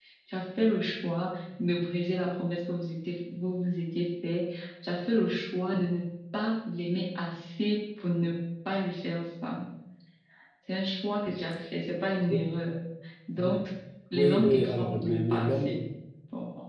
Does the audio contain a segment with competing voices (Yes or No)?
Yes